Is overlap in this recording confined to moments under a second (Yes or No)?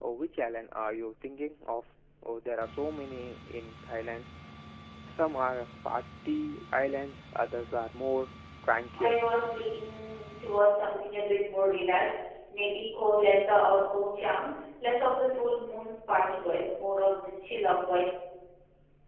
Yes